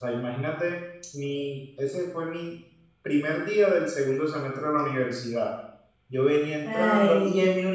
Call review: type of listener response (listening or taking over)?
listening